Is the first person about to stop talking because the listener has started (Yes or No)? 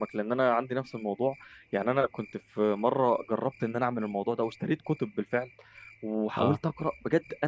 No